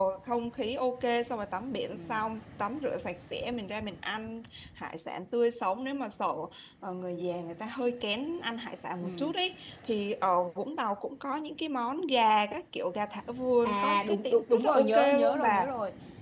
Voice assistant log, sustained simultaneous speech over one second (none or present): present